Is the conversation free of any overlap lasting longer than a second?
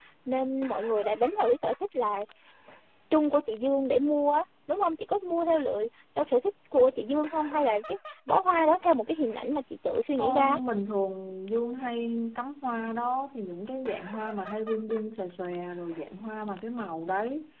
Yes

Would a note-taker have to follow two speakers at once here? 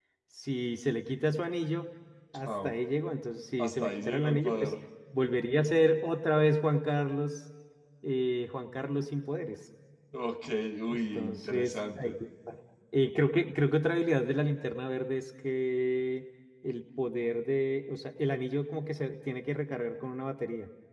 Yes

